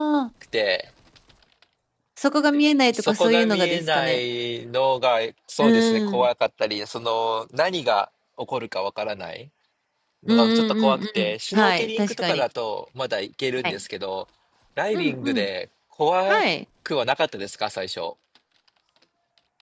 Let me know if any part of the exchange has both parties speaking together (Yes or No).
Yes